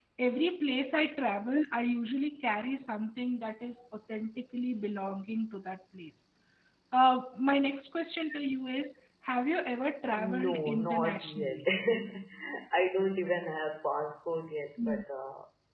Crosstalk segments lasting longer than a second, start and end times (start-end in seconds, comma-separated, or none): 10.2-11.6